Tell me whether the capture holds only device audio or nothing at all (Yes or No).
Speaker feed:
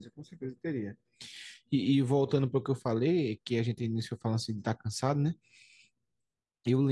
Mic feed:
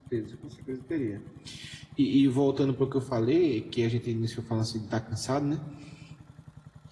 Yes